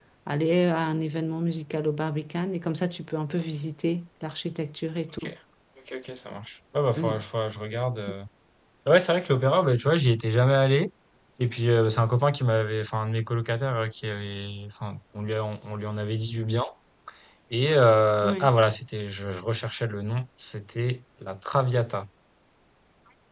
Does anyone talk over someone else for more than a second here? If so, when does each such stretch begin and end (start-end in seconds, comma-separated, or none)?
none